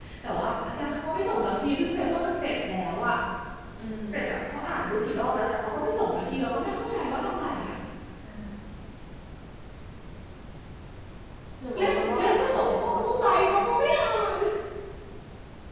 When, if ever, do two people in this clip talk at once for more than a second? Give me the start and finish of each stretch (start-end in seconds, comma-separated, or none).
11.7-13.8